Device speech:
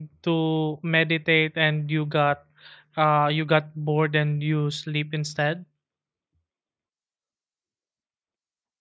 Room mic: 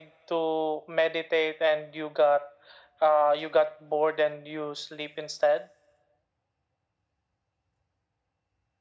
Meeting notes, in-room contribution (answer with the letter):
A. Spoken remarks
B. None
B